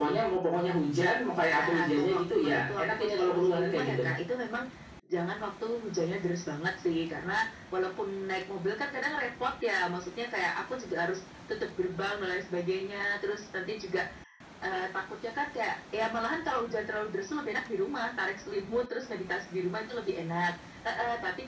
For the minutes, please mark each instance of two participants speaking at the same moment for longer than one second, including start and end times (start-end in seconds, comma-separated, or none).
1.5-4.0